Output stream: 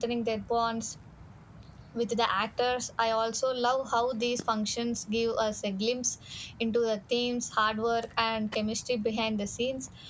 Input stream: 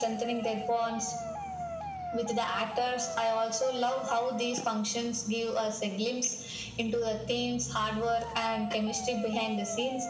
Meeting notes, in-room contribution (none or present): none